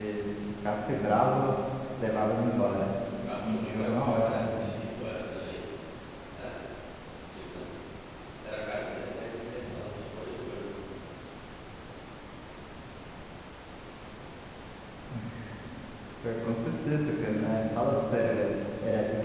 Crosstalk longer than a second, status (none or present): present